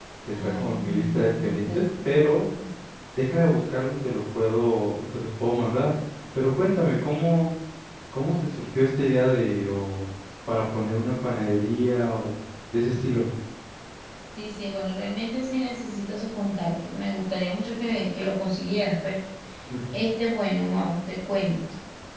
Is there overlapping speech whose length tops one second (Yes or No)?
Yes